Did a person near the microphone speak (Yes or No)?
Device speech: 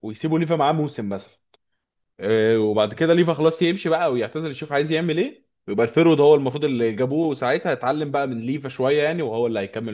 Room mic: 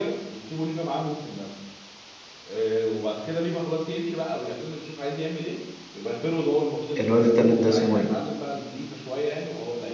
Yes